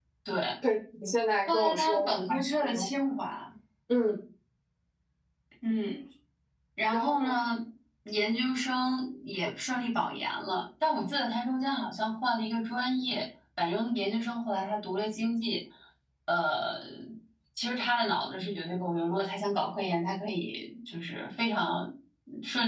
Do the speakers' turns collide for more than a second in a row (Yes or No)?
Yes